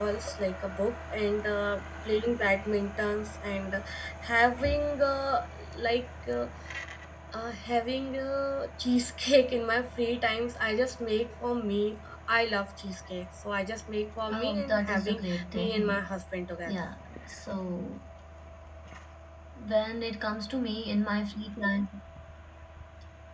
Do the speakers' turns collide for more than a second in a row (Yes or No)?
Yes